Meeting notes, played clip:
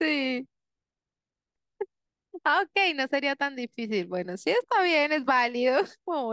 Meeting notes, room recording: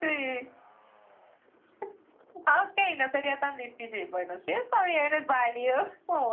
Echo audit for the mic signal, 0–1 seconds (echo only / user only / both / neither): echo only